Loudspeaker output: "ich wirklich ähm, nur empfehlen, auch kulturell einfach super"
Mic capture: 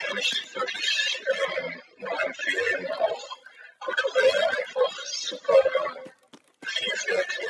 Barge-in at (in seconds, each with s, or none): none